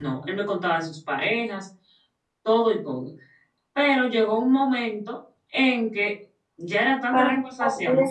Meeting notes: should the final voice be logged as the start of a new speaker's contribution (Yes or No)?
Yes